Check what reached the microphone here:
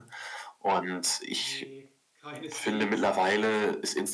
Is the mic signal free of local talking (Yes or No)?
No